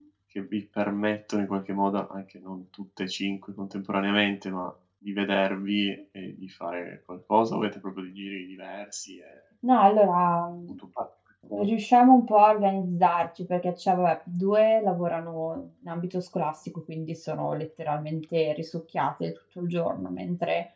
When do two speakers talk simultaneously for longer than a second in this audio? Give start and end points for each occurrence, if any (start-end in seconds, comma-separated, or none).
none